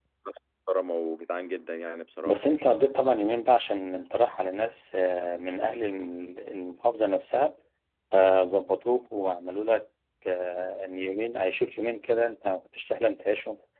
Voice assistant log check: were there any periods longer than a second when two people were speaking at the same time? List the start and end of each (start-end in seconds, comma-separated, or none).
none